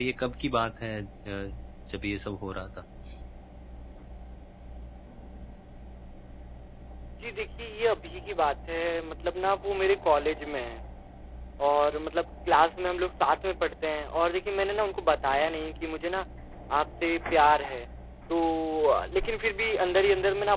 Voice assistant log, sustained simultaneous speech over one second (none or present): none